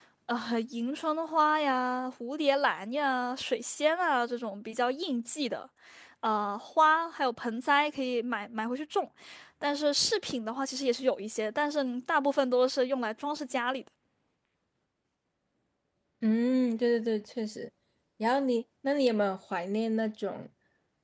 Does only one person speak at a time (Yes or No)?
Yes